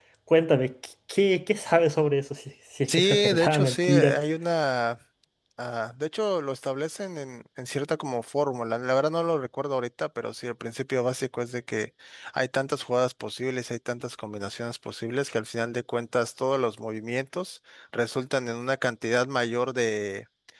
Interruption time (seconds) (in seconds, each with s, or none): 2.9 s